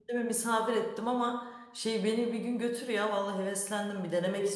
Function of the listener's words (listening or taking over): taking over